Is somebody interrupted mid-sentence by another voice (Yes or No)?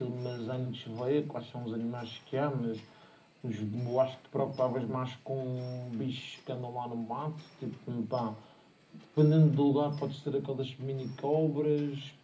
No